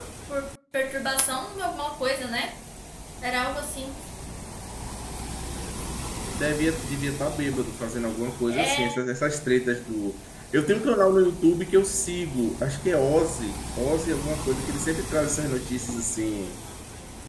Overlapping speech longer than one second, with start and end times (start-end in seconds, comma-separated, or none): none